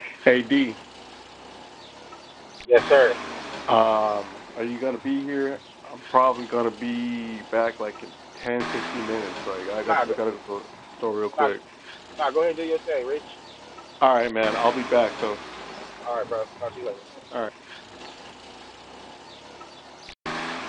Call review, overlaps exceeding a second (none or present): none